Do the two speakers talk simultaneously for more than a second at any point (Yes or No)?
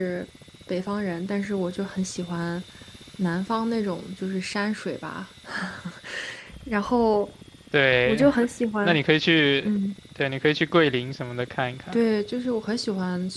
No